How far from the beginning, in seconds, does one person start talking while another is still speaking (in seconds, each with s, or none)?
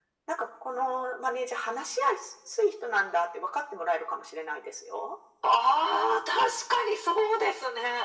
none